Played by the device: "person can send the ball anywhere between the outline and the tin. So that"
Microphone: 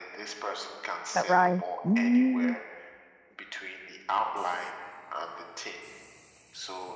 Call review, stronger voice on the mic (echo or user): user